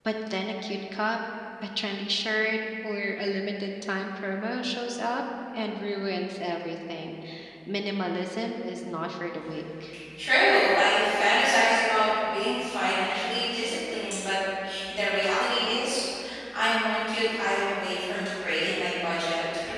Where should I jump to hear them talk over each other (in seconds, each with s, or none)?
none